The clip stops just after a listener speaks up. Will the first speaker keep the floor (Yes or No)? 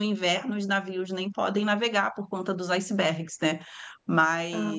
Yes